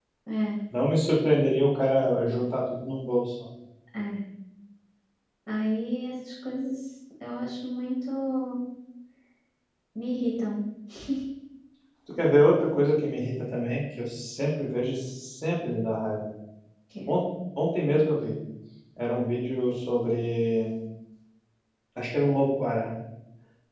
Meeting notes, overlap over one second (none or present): none